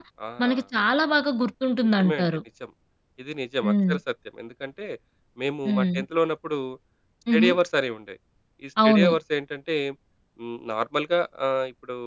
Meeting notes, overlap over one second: none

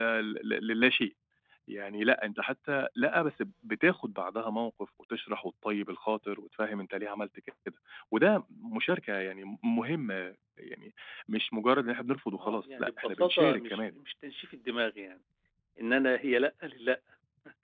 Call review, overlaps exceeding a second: present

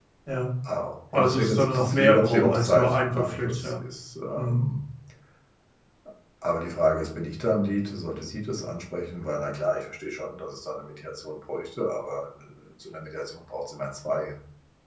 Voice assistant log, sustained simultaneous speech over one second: present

